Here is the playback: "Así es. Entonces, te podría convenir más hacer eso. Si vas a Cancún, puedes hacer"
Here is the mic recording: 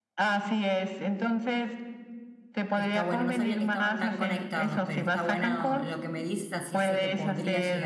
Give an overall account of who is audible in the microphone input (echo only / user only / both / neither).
both